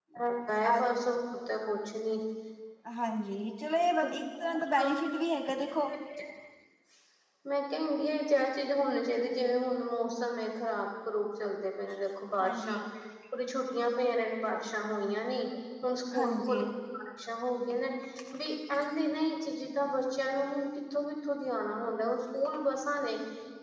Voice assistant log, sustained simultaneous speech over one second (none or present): none